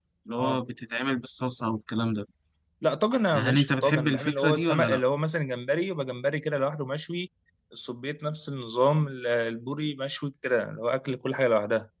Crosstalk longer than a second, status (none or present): present